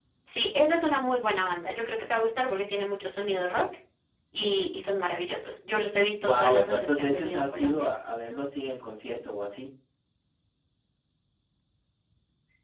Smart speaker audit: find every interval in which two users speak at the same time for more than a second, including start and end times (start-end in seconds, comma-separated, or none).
6.2-7.9